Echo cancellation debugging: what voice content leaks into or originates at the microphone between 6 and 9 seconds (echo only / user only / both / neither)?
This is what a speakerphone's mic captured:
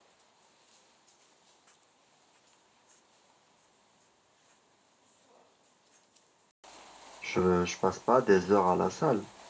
user only